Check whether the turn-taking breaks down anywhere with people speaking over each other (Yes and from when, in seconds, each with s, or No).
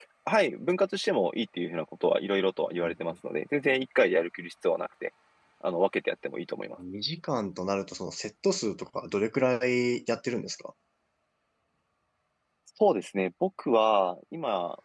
No